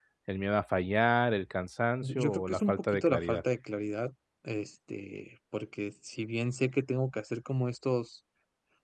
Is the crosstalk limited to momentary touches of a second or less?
No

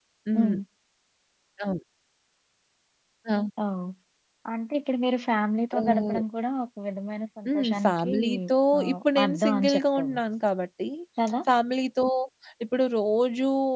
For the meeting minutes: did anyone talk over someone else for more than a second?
Yes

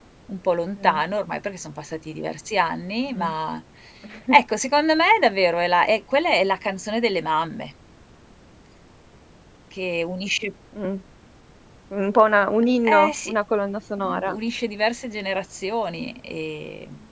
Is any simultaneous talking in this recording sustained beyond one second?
No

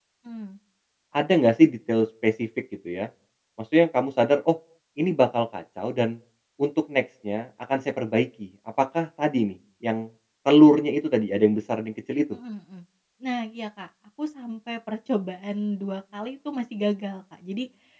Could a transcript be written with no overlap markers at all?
Yes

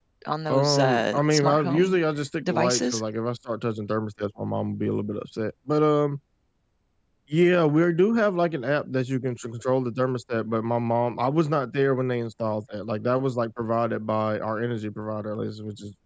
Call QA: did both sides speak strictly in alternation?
No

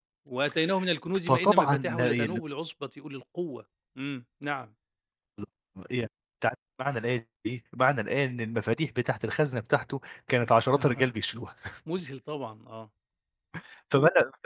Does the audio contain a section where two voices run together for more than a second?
Yes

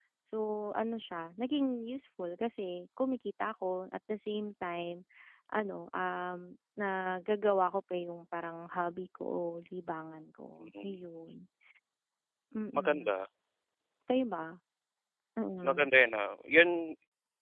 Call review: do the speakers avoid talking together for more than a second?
Yes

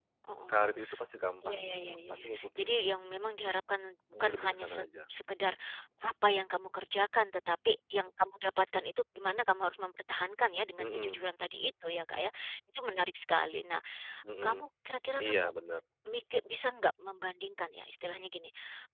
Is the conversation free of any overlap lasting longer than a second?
No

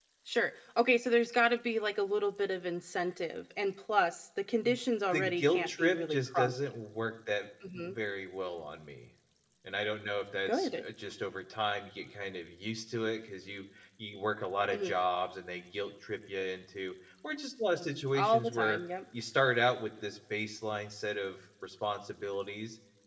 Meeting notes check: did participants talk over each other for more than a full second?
Yes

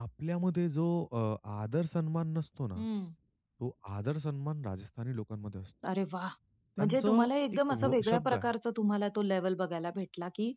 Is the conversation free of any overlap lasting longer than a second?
No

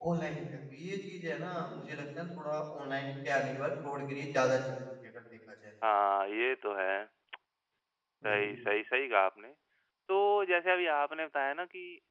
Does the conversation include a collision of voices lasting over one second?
No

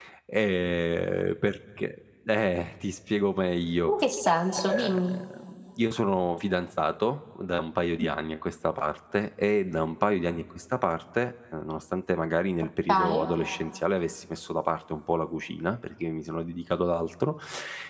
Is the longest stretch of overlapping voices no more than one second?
Yes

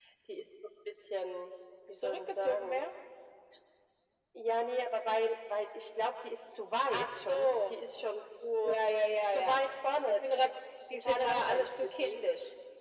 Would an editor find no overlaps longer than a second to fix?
No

